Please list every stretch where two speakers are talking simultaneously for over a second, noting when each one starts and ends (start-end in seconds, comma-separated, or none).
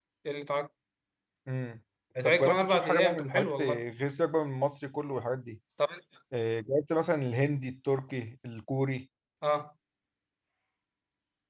2.2-3.8